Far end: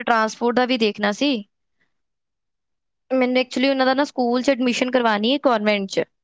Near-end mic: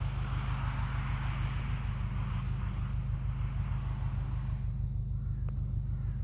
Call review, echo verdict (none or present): none